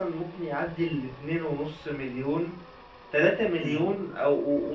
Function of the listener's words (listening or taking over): listening